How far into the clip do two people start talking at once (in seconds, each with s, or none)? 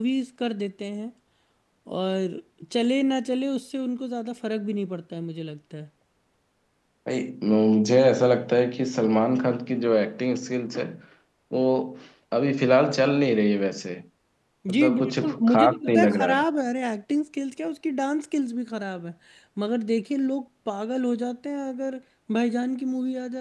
14.7 s